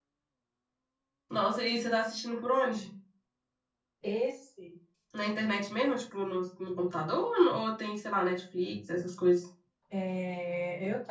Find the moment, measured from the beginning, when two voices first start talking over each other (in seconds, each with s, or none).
none